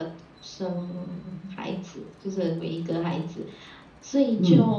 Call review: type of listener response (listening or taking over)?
listening